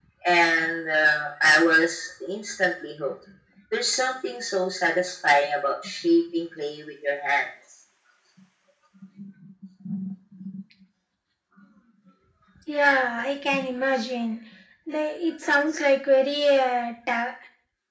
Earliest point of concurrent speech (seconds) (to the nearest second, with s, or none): none